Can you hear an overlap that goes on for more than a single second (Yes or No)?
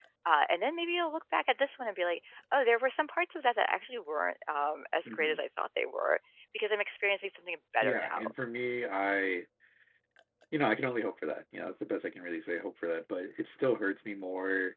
No